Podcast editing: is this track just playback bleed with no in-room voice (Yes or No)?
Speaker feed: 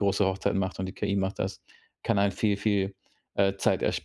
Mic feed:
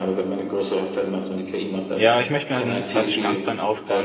No